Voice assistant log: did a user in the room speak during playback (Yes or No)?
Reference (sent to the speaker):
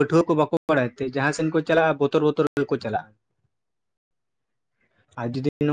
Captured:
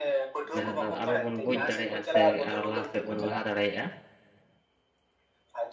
Yes